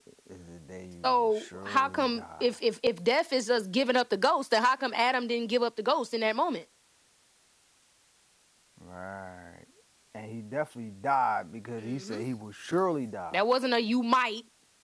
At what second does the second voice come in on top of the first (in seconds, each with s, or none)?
1.0 s